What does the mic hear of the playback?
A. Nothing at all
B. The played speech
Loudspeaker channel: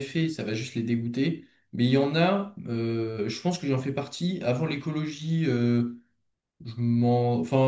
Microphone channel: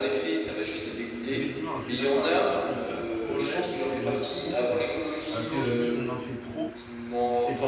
B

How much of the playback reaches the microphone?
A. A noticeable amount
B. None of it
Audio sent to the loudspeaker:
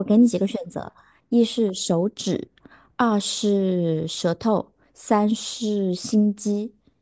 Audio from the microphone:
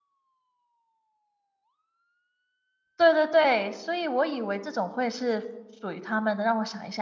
B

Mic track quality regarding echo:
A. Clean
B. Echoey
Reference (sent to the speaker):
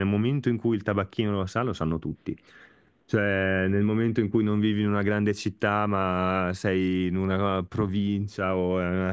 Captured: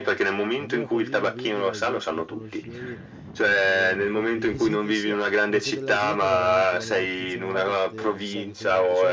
B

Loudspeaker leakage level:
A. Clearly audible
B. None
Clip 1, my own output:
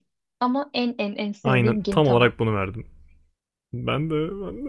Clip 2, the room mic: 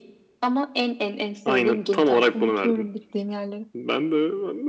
A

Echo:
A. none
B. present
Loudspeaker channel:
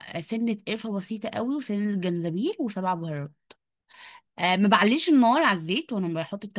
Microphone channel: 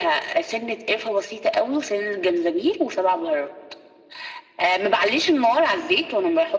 B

